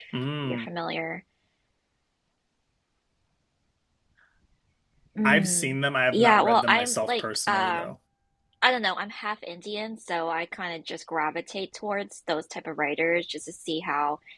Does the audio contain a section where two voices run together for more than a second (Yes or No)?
Yes